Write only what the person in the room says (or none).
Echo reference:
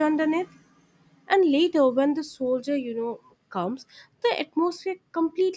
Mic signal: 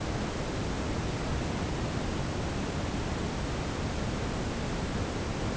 none